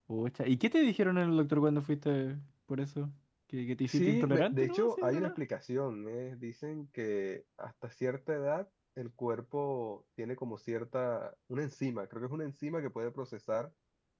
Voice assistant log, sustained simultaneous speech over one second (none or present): present